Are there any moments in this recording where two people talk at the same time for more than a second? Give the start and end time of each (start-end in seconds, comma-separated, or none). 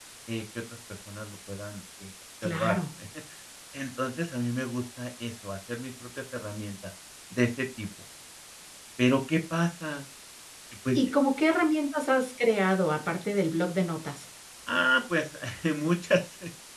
none